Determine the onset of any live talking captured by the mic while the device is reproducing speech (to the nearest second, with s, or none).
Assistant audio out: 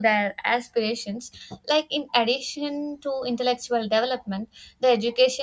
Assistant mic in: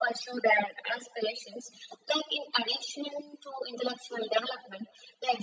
none